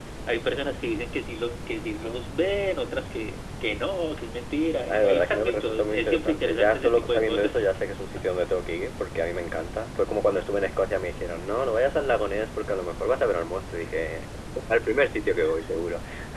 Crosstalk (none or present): present